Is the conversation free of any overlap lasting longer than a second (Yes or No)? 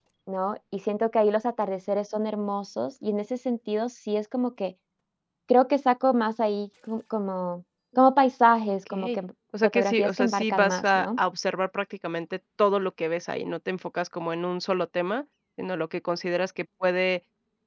No